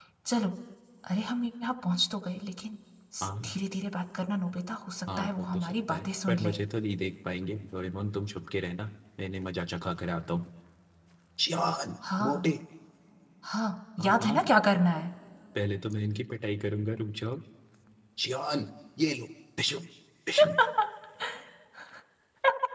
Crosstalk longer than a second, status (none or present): present